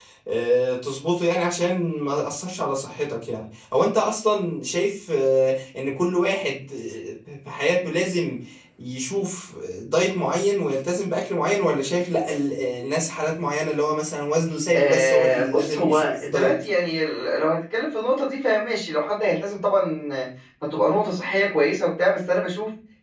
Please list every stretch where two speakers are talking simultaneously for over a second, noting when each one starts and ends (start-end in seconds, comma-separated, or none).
14.7-16.5